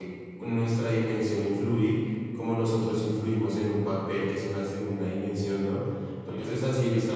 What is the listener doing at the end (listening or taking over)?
listening